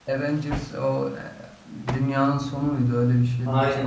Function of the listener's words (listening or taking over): taking over